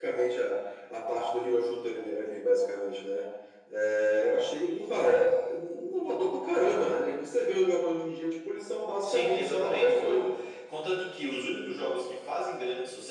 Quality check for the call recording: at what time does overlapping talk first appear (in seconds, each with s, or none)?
9.0 s